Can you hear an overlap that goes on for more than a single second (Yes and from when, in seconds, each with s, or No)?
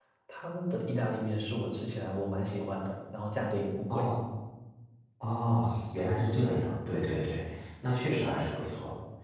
No